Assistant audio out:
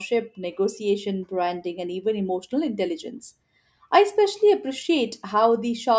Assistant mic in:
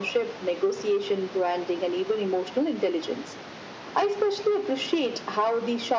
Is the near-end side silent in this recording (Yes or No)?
Yes